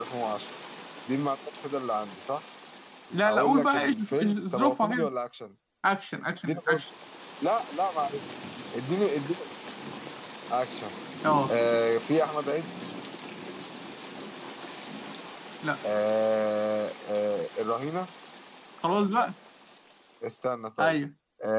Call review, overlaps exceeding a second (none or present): present